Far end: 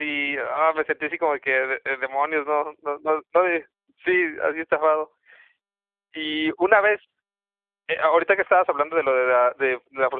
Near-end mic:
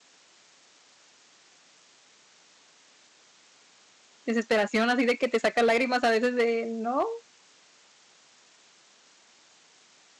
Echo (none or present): none